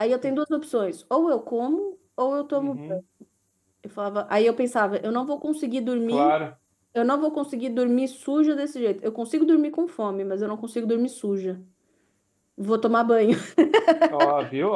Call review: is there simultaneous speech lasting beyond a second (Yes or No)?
No